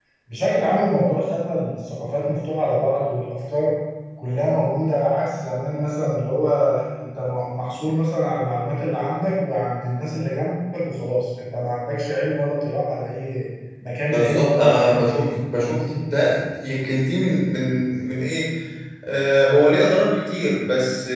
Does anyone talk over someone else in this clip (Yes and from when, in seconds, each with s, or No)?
Yes, from 14.1 s